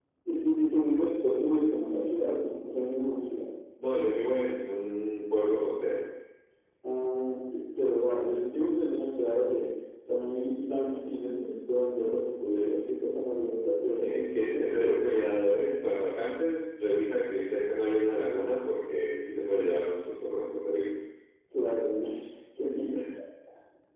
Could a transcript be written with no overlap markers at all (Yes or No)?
No